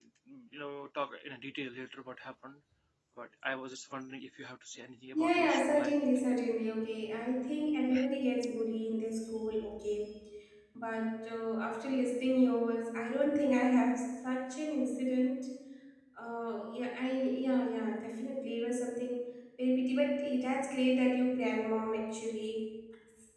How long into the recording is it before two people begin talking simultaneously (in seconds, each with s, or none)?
5.1 s